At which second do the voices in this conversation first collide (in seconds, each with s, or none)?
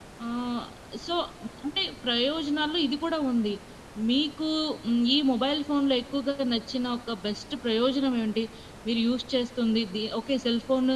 none